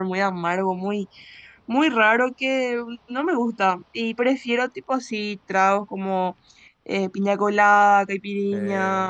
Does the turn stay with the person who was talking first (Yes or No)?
Yes